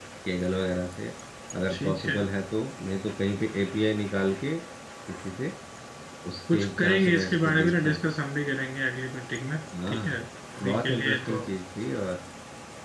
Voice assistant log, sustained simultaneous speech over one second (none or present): present